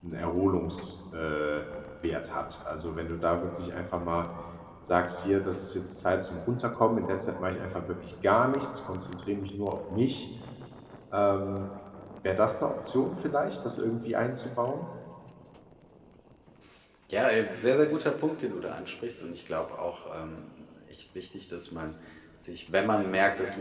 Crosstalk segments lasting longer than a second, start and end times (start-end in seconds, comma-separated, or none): none